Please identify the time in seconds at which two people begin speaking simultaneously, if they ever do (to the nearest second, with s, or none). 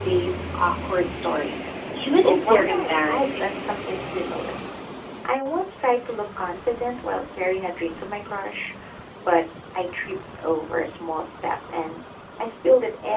2 s